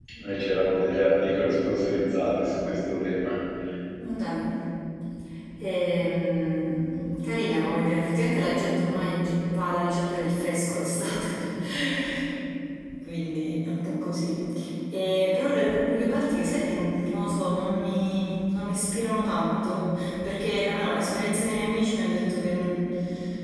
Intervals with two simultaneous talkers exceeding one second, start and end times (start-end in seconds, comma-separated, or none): none